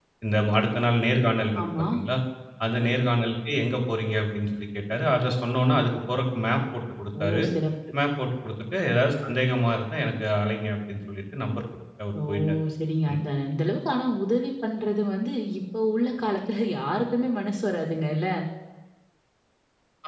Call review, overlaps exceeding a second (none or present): none